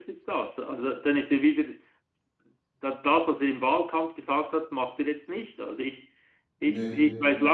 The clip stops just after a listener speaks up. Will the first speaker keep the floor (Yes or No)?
Yes